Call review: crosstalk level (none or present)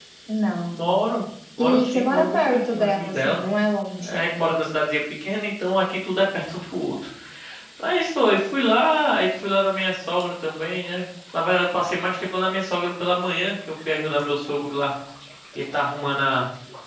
present